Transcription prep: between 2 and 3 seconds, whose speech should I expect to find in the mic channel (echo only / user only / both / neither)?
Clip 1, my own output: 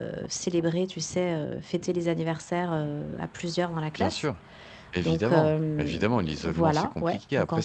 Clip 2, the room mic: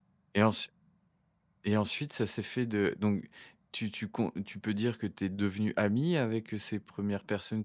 user only